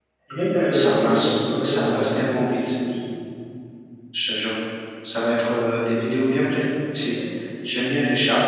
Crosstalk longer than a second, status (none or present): present